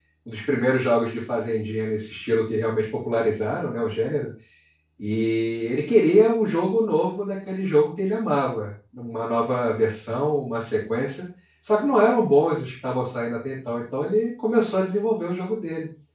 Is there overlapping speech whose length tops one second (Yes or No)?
No